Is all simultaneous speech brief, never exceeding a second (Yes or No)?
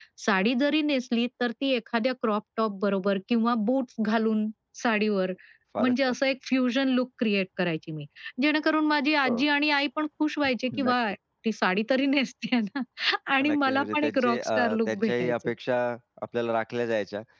No